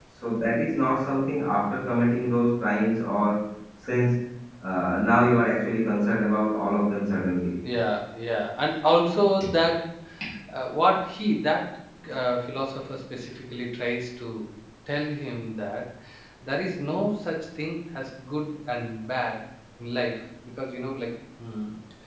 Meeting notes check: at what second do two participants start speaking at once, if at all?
none

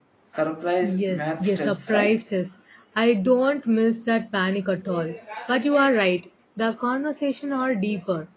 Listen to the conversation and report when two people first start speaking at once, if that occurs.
0.8 s

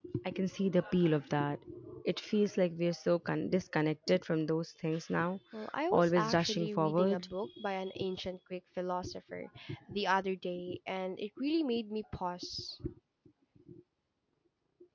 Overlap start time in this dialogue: 5.9 s

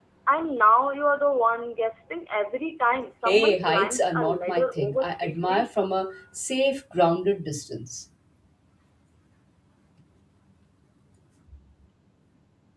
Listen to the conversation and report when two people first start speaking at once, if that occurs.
3.2 s

